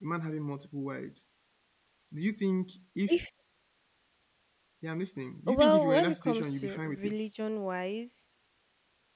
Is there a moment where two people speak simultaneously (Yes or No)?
Yes